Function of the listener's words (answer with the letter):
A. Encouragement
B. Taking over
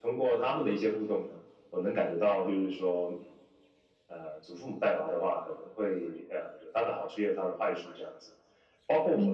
A